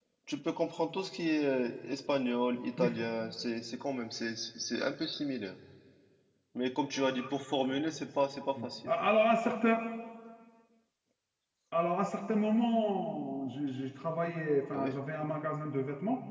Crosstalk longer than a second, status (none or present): none